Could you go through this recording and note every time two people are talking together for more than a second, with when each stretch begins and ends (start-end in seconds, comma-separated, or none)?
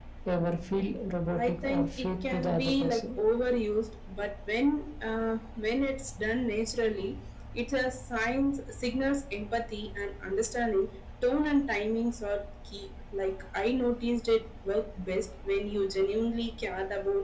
1.4-3.0